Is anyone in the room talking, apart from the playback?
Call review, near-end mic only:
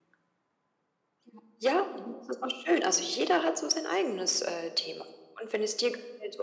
No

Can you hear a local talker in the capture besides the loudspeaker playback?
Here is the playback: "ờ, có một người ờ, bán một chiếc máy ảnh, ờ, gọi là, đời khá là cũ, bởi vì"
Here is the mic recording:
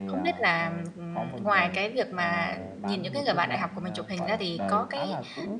Yes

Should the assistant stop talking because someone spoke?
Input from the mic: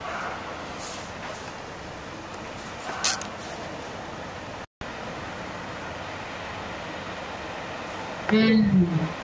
Yes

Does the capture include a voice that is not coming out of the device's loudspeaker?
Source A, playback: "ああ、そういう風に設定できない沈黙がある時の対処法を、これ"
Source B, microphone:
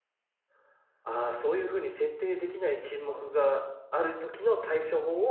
Yes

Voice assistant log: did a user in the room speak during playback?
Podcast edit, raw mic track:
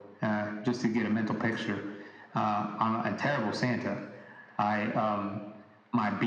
No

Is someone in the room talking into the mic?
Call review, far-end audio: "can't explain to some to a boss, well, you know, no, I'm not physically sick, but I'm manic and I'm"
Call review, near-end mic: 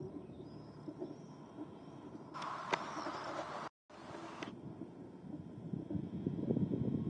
No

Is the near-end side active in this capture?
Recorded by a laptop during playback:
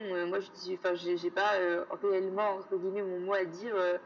No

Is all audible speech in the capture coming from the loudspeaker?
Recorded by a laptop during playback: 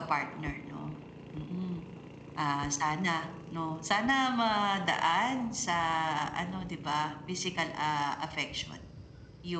Yes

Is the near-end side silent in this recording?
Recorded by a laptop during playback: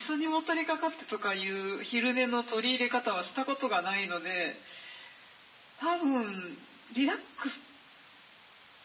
Yes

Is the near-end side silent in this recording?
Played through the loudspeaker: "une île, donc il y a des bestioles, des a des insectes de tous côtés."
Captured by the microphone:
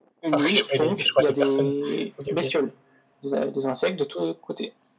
No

